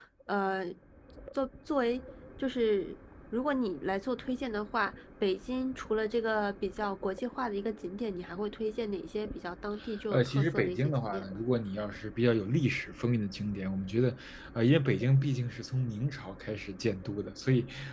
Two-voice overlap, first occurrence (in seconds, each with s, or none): 10.1 s